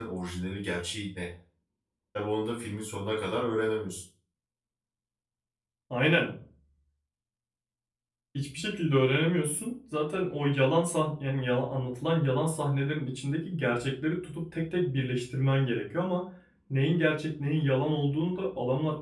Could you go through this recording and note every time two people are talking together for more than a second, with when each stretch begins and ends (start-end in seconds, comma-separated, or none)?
none